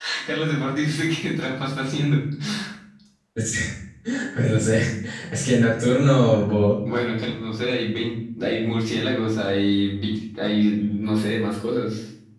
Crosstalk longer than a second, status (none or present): none